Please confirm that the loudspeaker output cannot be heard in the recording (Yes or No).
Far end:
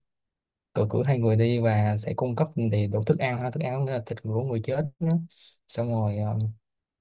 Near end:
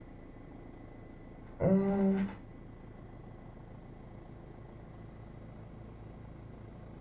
Yes